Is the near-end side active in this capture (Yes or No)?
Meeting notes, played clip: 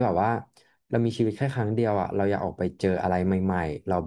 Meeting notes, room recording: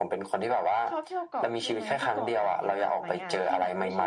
Yes